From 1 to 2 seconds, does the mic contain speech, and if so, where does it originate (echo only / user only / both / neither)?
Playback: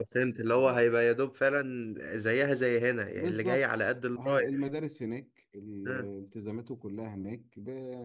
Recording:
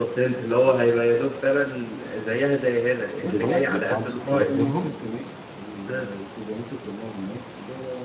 echo only